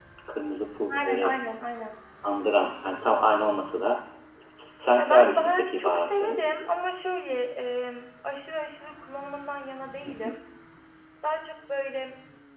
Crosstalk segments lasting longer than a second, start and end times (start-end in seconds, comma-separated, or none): 5.0-6.4